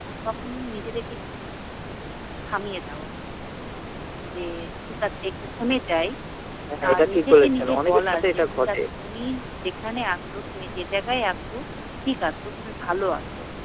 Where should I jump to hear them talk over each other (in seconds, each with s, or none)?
6.9 s